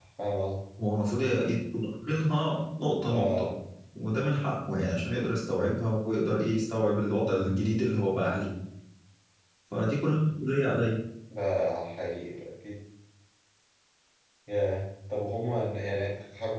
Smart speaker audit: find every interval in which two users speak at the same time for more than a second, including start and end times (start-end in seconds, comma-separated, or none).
none